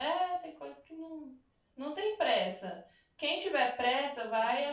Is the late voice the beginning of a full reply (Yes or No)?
No